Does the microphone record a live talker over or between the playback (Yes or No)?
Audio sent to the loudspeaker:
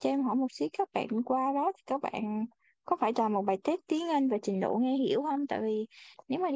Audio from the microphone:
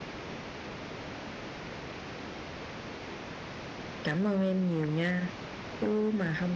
Yes